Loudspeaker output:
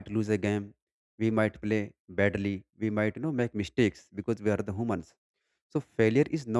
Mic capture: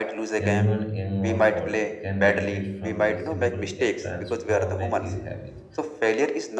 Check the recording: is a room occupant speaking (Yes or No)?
Yes